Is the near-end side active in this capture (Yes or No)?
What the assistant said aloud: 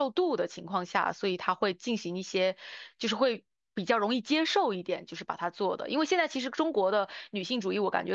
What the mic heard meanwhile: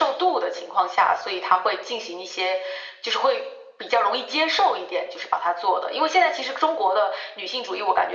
No